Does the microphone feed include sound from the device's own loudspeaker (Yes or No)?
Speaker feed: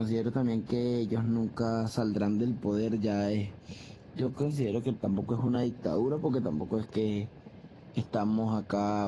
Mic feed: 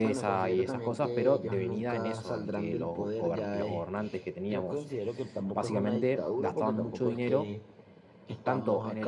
Yes